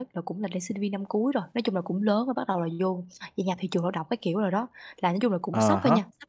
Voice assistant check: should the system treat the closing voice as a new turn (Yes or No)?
No